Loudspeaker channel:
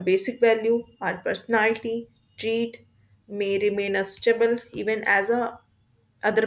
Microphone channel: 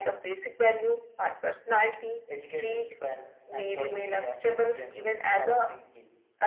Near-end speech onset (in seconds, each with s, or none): 2.3 s